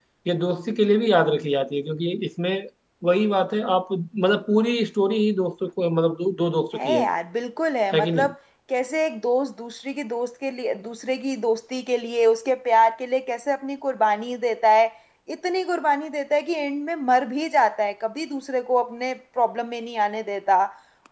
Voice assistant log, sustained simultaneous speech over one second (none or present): none